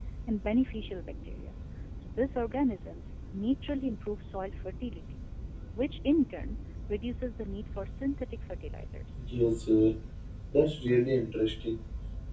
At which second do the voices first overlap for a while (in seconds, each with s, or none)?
none